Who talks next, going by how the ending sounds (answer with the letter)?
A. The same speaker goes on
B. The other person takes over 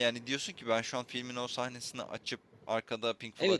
B